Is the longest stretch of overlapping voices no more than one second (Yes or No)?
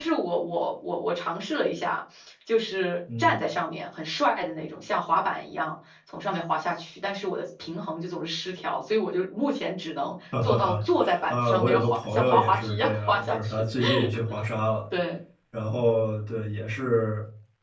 No